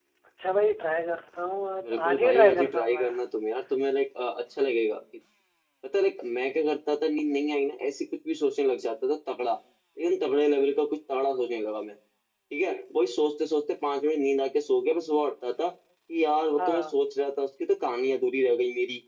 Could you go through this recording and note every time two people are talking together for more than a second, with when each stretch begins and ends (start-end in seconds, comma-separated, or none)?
1.8-3.1